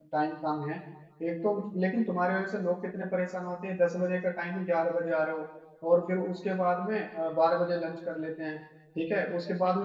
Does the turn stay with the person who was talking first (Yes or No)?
Yes